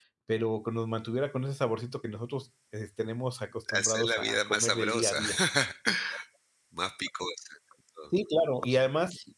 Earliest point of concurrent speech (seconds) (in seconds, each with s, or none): 3.8 s